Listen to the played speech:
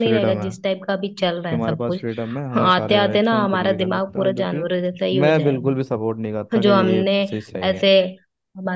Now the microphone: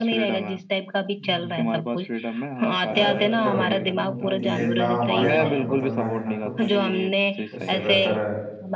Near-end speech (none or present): present